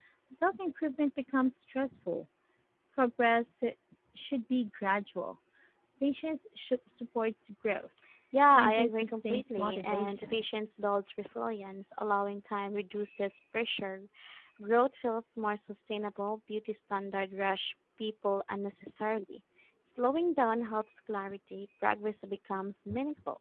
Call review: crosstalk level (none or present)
present